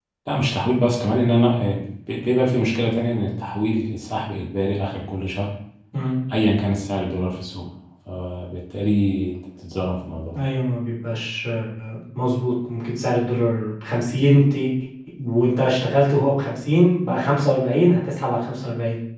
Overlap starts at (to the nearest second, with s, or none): none